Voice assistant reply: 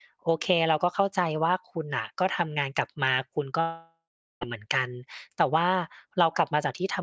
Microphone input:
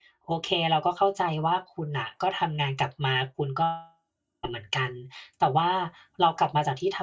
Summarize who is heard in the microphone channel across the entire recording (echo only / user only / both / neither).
echo only